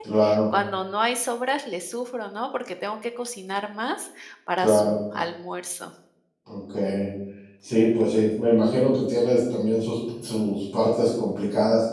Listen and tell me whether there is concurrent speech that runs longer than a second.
No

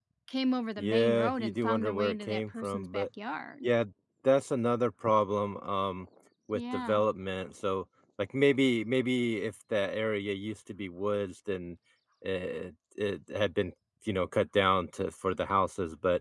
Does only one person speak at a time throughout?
No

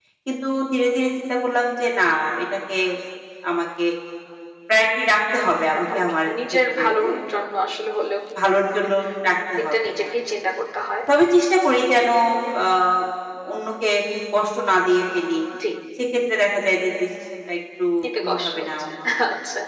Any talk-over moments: Yes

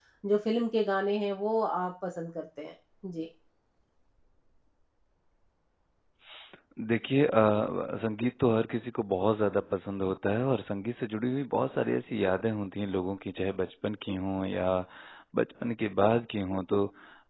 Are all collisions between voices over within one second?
Yes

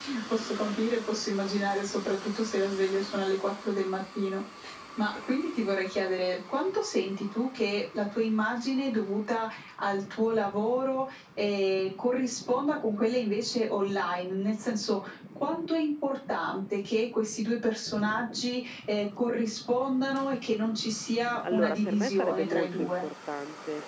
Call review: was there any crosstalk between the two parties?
Yes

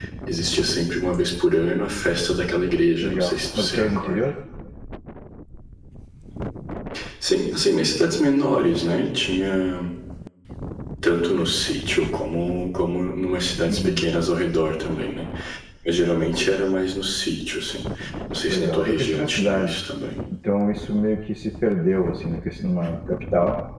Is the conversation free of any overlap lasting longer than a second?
No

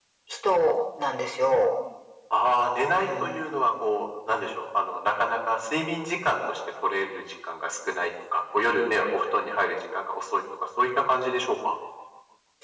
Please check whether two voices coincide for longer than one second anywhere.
No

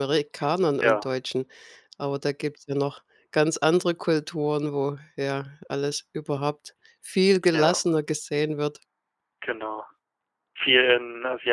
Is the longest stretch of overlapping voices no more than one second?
Yes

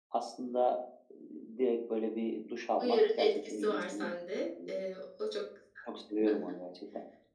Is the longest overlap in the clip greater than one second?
Yes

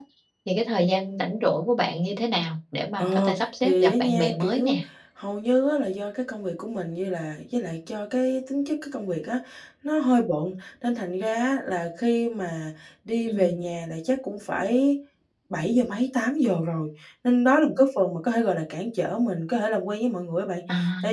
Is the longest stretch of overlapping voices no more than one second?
No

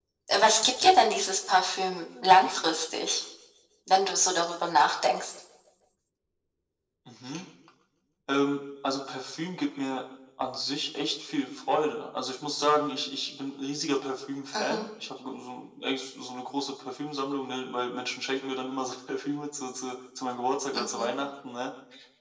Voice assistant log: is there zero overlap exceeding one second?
Yes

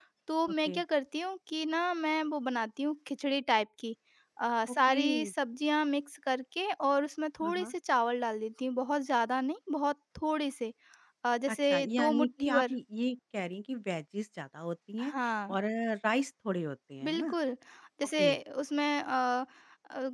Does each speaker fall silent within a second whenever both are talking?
No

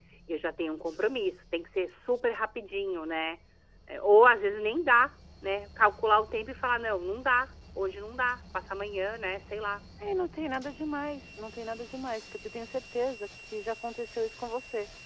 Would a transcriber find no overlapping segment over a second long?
Yes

